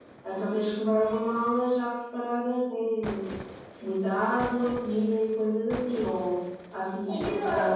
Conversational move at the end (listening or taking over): taking over